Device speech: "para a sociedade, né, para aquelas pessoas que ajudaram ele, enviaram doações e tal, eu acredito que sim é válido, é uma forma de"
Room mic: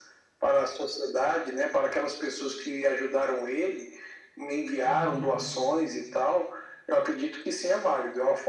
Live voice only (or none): Uhum,